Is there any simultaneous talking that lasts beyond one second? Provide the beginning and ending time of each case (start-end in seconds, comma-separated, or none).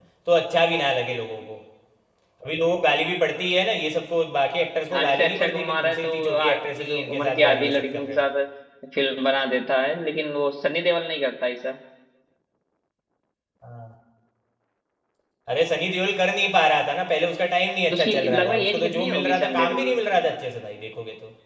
4.9-8.2, 17.9-19.9